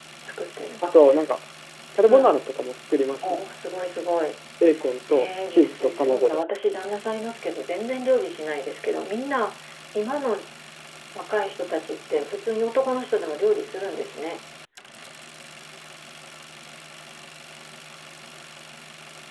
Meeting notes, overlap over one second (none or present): present